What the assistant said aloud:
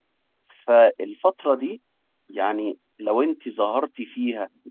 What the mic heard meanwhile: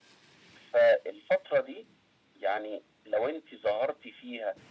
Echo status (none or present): present